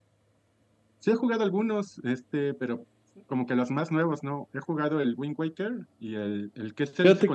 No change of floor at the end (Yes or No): Yes